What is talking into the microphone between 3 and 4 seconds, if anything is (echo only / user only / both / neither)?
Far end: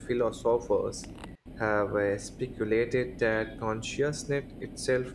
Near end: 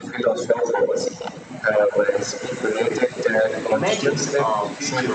both